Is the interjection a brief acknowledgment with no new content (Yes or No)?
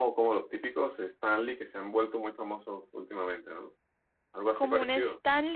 No